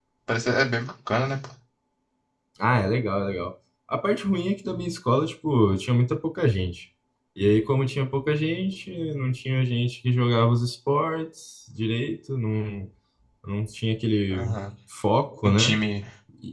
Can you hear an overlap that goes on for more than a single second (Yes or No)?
No